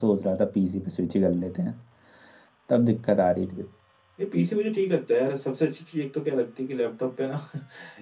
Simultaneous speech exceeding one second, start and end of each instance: none

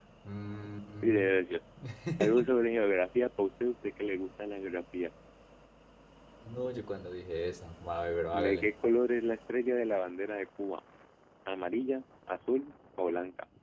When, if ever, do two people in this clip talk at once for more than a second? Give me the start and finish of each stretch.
none

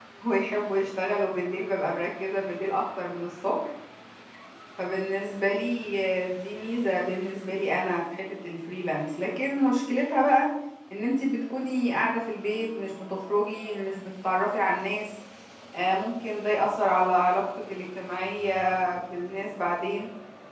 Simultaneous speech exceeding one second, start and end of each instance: none

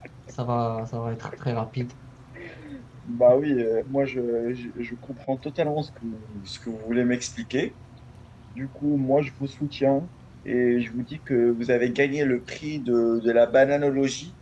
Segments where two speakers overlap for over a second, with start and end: none

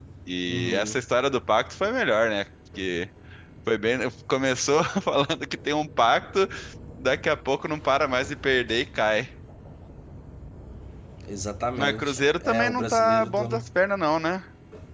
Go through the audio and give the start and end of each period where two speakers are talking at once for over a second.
11.8-13.6

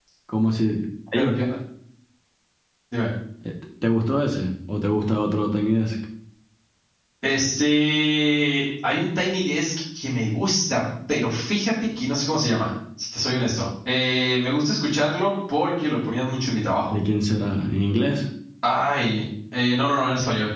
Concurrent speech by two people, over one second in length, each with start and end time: none

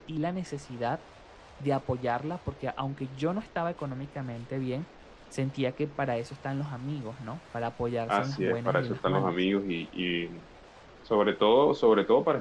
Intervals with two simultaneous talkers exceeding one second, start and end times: 8.1-9.4

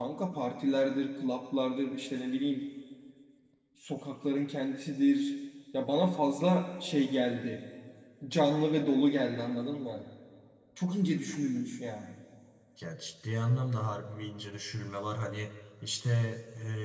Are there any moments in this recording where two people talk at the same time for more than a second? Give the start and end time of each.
none

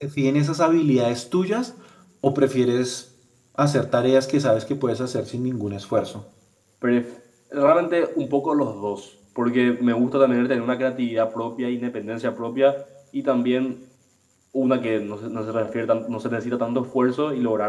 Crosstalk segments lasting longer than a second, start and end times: none

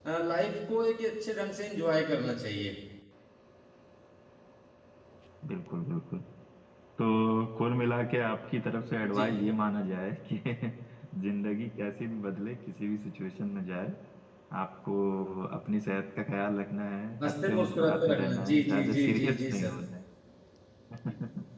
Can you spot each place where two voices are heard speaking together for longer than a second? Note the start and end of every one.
17.2-19.7

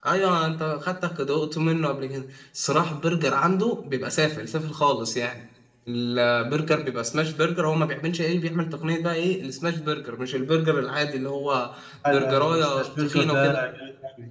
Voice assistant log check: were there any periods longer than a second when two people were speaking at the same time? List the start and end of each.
12.1-13.6

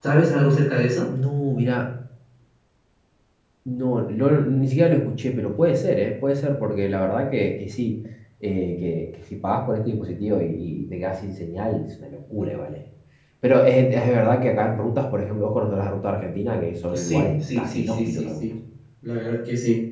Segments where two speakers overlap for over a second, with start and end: 16.9-18.5

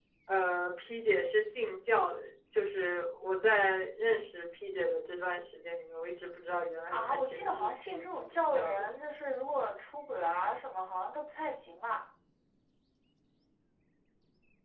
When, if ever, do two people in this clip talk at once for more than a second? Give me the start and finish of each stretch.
6.9-8.9

